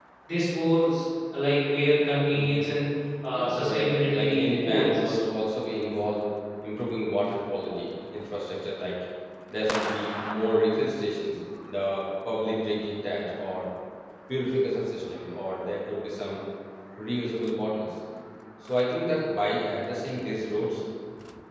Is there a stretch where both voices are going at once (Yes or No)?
Yes